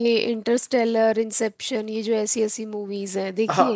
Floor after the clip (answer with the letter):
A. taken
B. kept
A